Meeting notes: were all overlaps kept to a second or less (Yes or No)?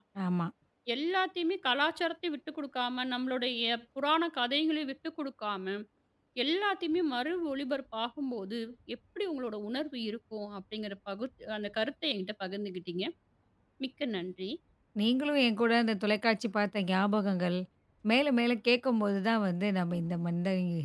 Yes